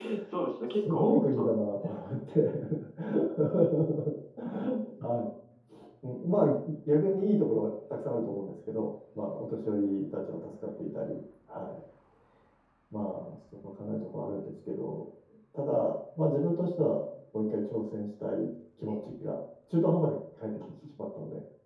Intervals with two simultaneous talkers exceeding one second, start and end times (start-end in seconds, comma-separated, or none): 0.7-2.0